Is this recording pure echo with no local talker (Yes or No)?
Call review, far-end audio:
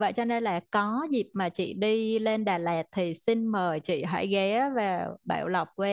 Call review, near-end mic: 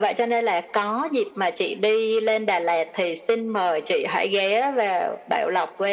Yes